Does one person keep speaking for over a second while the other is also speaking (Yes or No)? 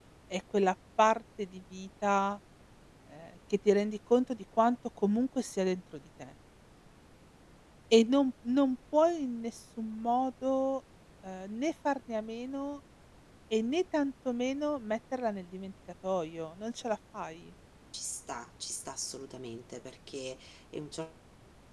No